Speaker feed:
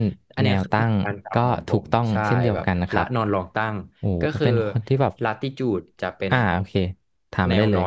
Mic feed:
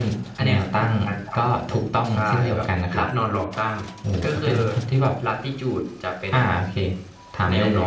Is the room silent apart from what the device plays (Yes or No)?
Yes